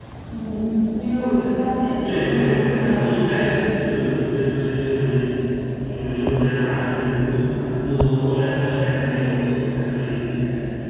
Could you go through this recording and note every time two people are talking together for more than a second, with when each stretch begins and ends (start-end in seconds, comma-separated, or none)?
2.0-3.6